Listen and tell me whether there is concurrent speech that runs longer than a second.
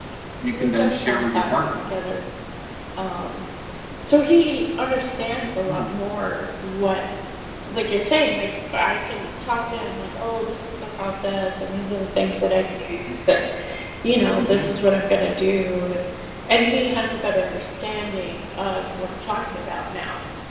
Yes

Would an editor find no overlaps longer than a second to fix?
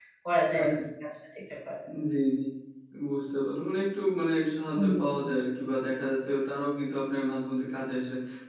Yes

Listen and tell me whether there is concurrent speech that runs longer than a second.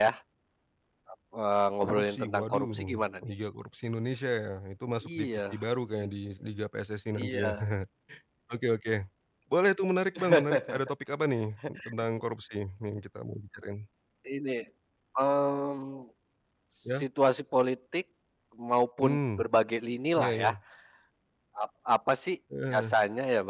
Yes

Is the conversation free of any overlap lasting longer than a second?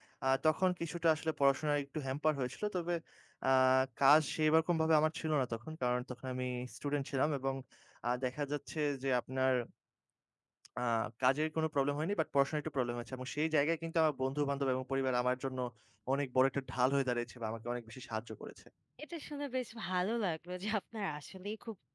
Yes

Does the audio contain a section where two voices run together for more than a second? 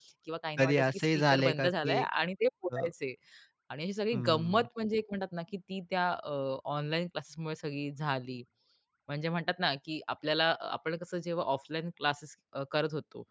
Yes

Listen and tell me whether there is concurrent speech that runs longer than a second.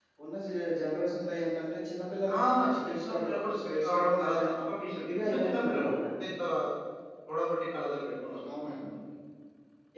Yes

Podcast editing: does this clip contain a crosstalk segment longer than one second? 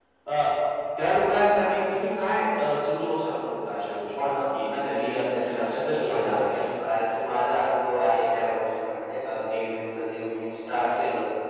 Yes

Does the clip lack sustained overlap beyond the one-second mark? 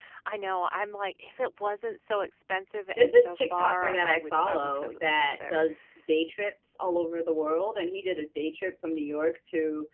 No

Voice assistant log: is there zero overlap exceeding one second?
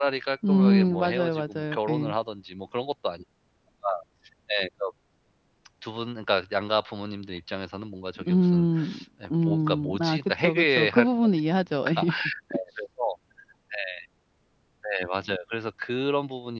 No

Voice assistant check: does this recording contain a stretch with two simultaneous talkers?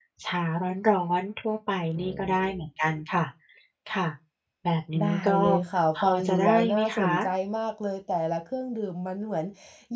Yes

